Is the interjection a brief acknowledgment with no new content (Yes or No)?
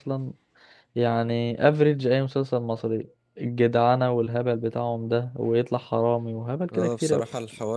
No